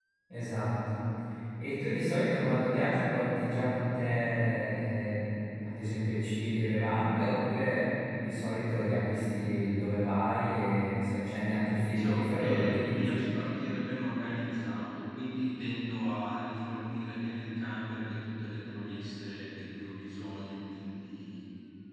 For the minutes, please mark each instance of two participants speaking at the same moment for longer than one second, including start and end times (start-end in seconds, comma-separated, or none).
11.8-13.2